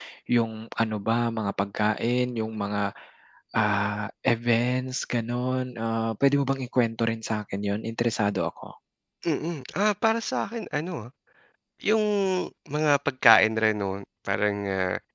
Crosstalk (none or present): none